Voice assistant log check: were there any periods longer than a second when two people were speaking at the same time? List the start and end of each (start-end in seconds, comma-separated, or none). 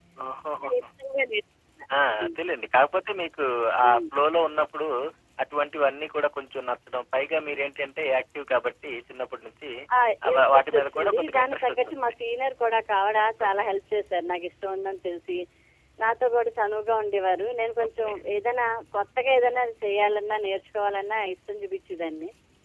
10.3-12.1